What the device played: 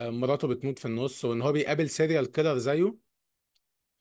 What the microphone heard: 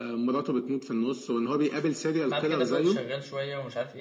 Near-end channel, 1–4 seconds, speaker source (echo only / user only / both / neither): both